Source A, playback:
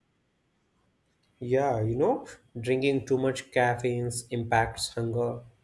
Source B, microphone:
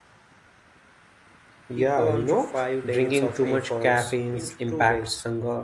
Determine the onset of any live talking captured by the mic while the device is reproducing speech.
1.7 s

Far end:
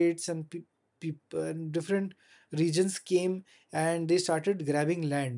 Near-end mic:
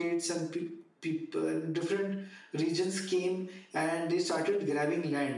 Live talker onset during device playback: none

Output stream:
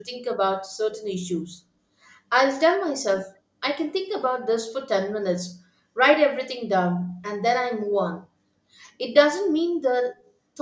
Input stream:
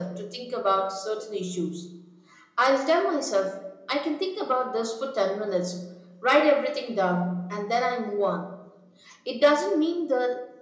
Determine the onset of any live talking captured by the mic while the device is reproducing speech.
none

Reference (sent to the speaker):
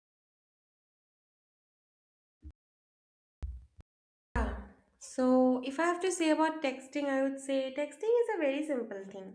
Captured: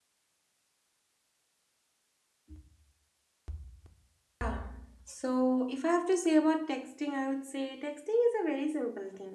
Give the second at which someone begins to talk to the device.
none

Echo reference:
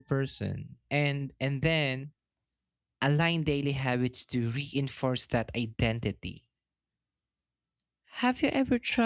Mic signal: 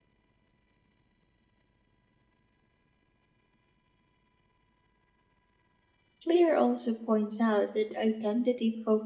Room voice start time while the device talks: 6.2 s

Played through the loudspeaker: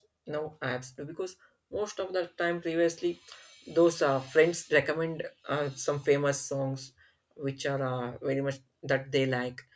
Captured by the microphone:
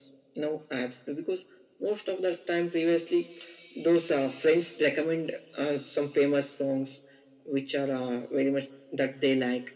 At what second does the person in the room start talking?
none

